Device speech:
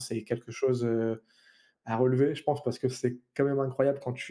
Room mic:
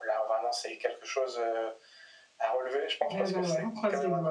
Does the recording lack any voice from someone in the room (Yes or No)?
No